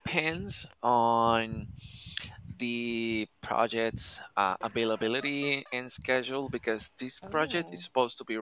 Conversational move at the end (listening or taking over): listening